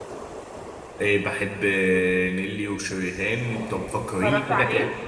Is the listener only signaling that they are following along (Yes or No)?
Yes